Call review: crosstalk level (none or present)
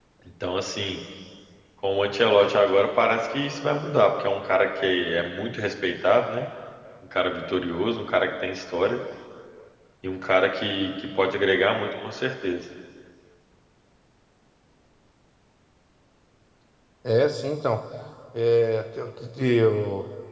none